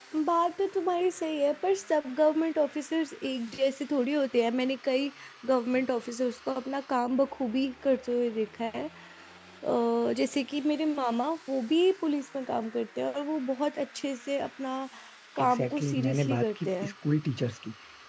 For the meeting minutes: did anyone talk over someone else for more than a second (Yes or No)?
Yes